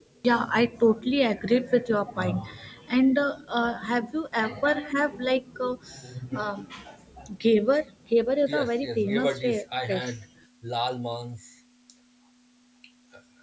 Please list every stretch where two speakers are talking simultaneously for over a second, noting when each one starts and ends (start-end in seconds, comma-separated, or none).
8.5-10.2